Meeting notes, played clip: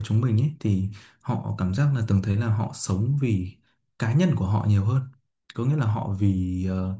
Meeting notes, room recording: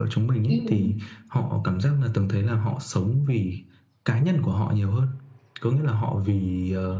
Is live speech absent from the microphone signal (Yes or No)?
No